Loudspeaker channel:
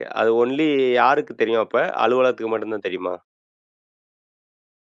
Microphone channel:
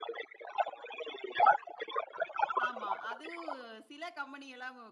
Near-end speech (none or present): present